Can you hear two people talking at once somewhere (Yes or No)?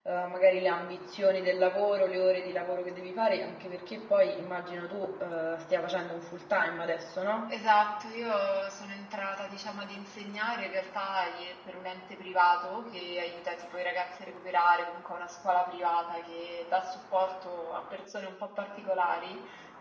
No